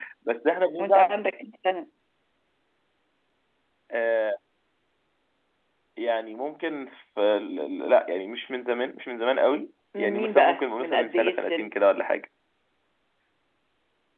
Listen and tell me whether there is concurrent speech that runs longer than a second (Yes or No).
Yes